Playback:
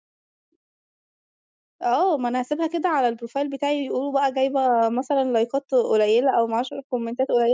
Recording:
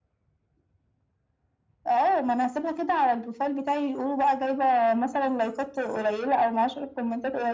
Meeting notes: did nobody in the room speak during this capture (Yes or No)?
Yes